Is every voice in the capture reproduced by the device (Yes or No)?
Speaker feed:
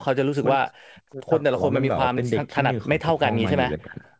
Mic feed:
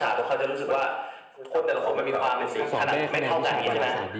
No